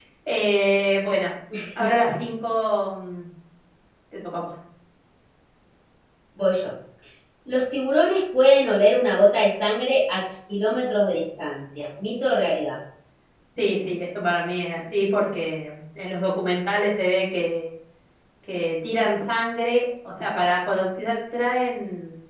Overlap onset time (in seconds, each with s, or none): none